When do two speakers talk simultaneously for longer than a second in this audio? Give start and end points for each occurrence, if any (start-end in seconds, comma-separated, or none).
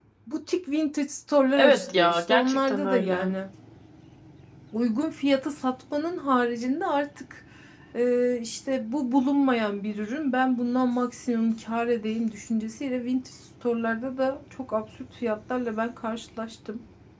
1.6-3.3